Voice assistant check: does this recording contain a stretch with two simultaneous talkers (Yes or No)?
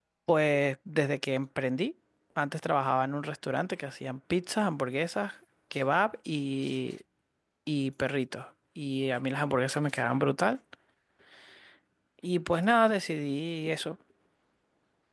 No